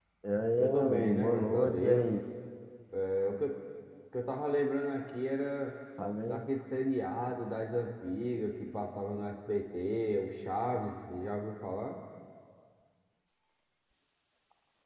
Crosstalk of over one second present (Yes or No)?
Yes